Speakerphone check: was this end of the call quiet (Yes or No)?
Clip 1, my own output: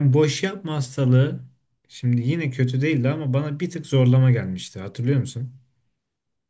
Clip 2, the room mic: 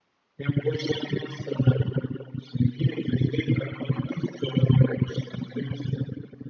Yes